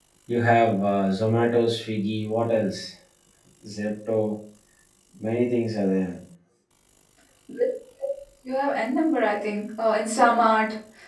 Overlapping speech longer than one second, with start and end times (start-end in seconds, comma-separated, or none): none